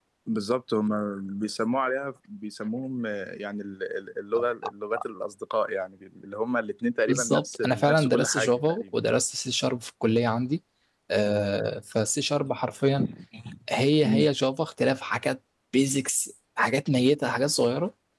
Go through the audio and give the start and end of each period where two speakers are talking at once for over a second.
7.1-8.9

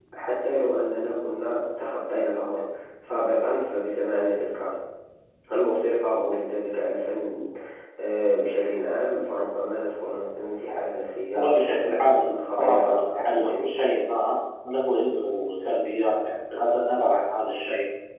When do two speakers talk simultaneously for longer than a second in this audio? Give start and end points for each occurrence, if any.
11.3-13.8

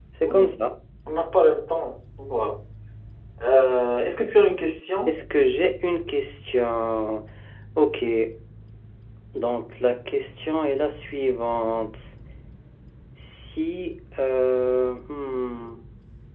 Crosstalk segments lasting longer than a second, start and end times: none

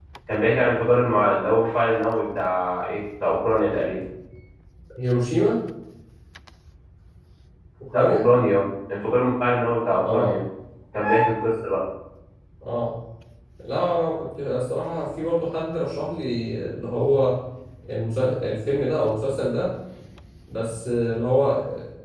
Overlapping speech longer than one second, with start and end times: none

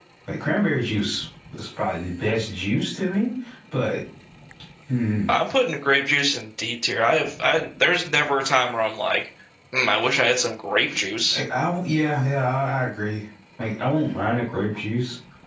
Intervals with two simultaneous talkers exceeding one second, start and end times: none

